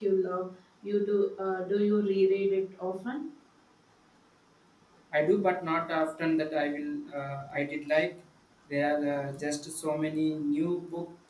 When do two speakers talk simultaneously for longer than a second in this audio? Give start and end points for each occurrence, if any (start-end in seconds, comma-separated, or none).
none